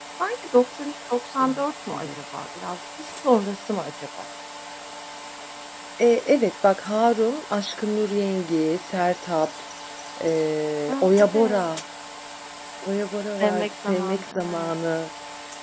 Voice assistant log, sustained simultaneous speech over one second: present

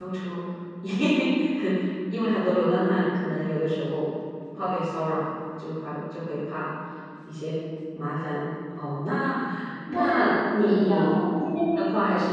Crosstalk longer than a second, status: present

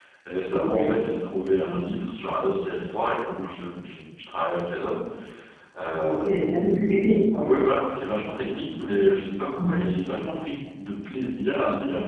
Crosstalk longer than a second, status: none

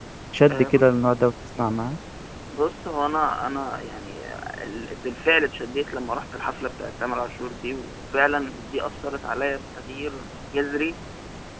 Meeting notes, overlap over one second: none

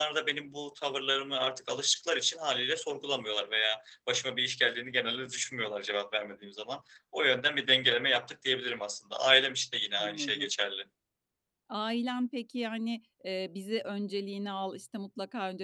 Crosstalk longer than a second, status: none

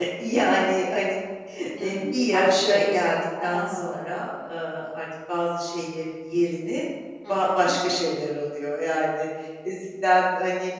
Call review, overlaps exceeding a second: present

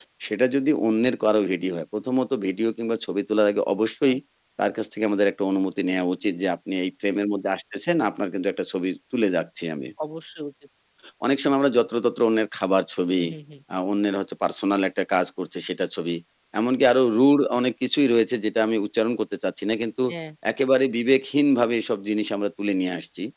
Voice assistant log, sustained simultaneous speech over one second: none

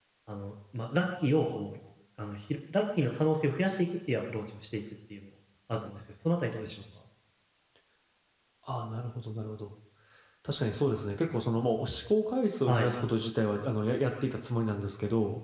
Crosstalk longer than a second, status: none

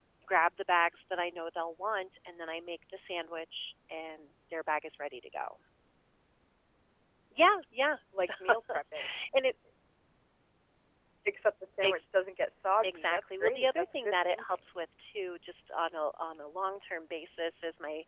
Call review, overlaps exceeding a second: present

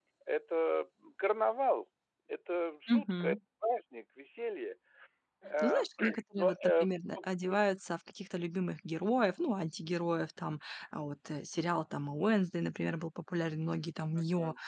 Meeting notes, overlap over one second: present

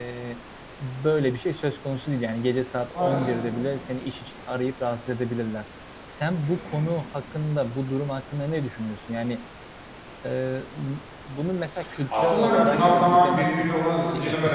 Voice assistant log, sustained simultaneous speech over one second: present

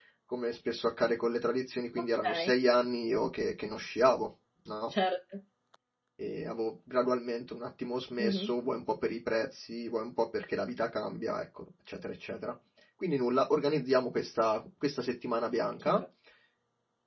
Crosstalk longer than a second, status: none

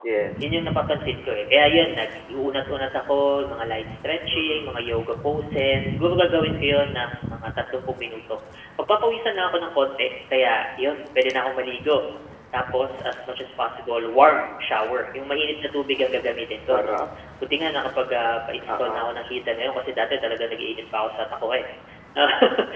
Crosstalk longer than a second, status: none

